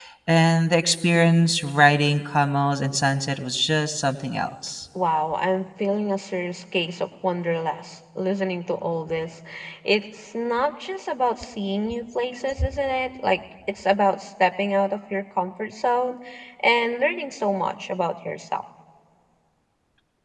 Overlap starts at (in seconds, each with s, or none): none